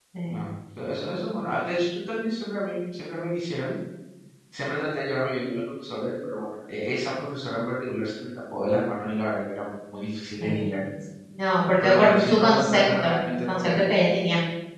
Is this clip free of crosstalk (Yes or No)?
No